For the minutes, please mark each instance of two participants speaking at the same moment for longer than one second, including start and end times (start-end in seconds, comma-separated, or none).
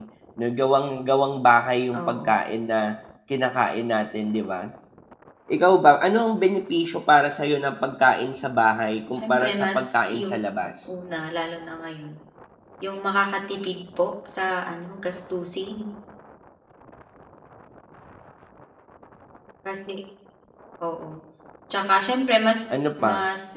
9.2-10.4